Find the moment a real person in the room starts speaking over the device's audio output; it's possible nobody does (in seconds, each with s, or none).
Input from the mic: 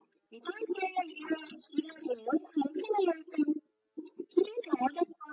none